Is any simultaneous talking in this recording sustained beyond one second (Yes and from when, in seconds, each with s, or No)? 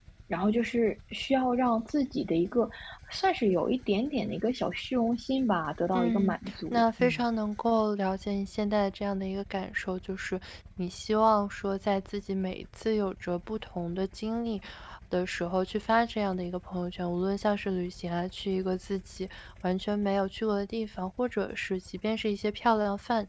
Yes, from 5.9 s